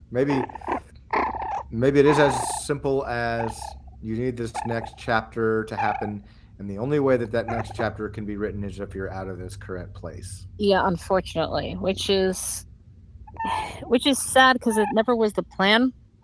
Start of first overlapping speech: none

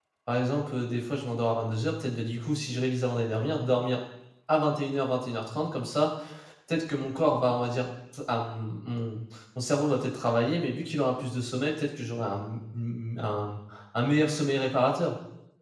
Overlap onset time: none

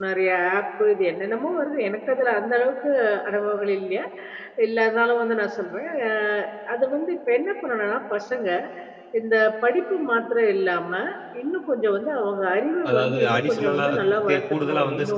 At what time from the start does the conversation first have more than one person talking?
12.8 s

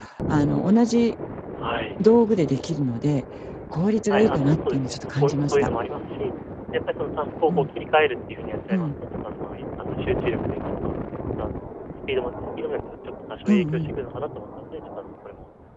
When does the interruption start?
4.1 s

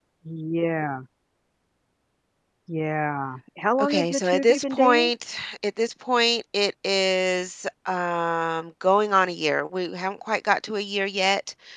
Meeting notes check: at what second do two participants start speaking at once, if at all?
3.8 s

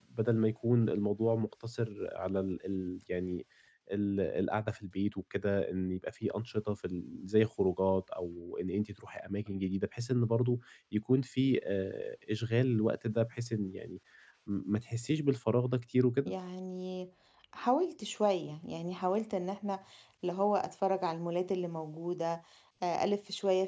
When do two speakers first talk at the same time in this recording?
none

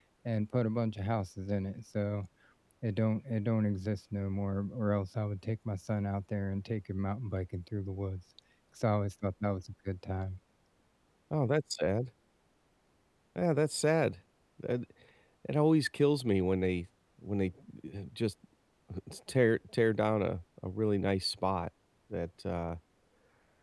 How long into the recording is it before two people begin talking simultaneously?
none

